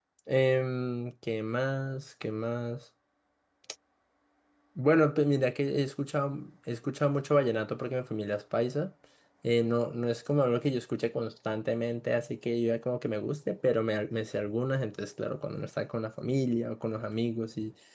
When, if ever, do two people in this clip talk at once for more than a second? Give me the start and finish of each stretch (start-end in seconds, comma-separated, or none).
none